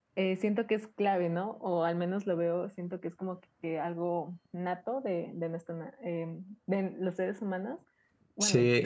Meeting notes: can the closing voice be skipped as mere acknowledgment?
No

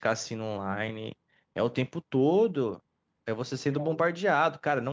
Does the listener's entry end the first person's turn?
No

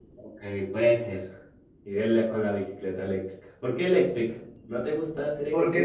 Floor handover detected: Yes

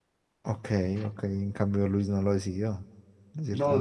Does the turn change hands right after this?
Yes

